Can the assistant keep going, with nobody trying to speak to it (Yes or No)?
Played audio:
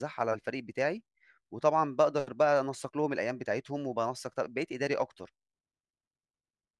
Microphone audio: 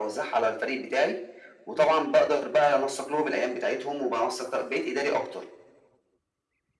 Yes